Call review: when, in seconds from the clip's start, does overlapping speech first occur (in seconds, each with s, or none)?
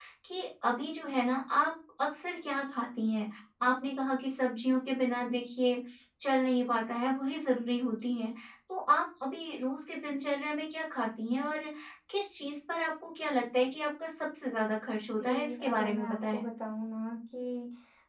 15.1 s